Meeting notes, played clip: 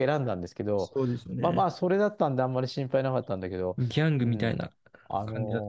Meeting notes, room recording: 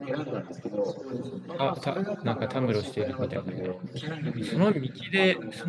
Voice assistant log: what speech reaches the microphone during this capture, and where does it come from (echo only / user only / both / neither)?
both